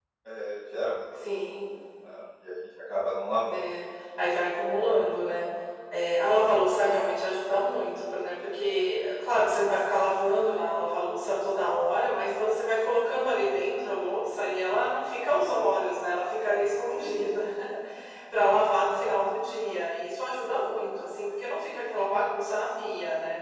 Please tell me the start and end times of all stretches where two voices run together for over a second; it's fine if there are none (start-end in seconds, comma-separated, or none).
none